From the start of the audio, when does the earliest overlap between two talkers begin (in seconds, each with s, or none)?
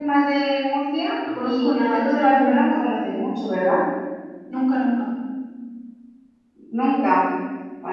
1.3 s